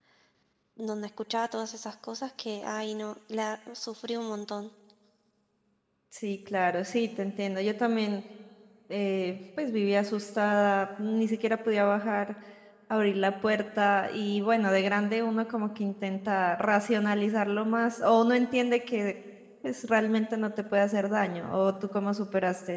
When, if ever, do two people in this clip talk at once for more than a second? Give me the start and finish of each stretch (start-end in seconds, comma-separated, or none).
none